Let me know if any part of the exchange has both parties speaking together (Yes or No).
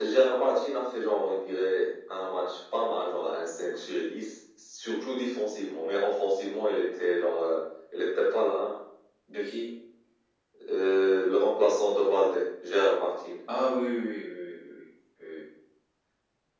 No